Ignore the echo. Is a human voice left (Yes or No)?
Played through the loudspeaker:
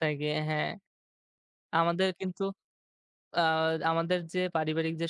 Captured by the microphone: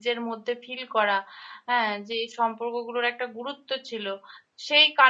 Yes